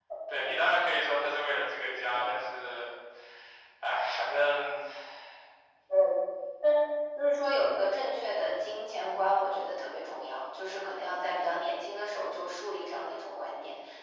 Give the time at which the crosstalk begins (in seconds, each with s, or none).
none